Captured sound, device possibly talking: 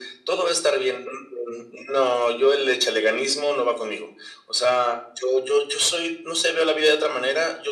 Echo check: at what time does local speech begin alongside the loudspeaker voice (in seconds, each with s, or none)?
none